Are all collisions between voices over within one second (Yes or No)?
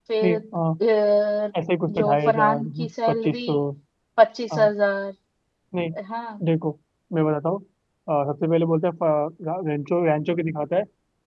No